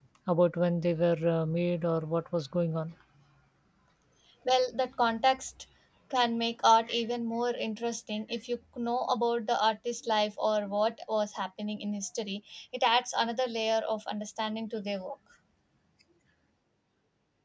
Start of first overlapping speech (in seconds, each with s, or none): none